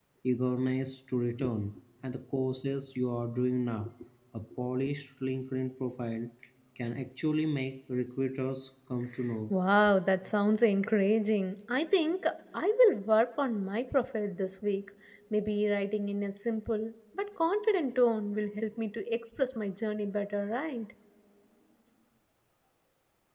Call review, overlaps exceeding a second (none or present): none